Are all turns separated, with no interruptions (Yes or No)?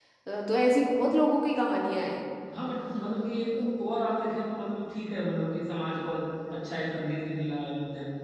Yes